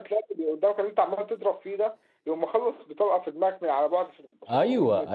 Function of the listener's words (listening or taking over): taking over